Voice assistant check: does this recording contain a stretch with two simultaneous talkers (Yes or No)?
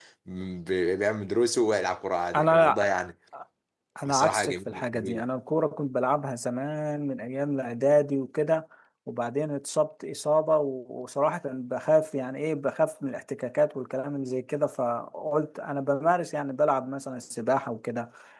Yes